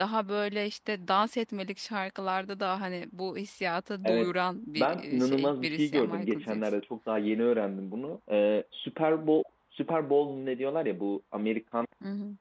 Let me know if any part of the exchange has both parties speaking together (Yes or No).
Yes